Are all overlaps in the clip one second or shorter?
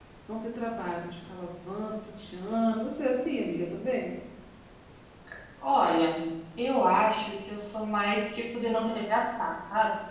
Yes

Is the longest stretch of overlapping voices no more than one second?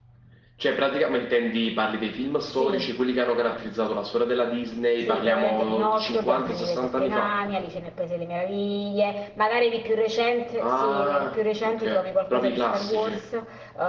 No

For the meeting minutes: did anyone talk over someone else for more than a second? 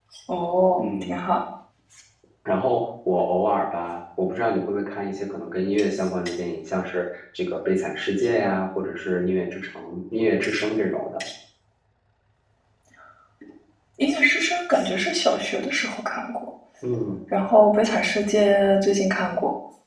No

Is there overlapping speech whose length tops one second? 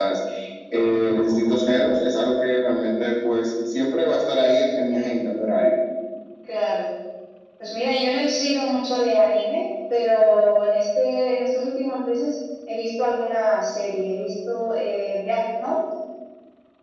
No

